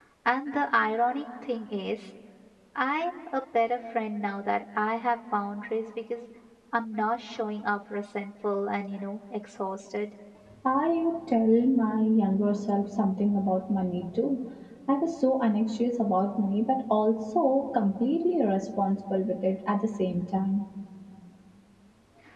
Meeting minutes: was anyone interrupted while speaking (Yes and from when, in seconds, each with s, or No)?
No